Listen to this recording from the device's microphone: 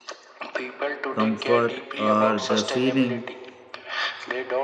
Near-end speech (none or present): present